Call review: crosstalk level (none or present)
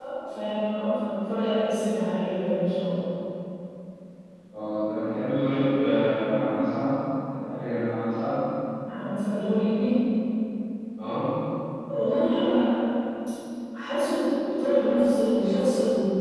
none